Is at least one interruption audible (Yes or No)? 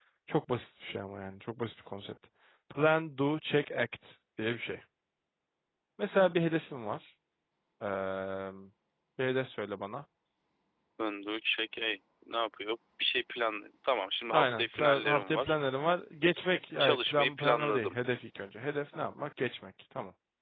Yes